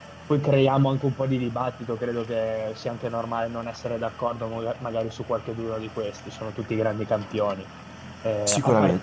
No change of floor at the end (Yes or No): Yes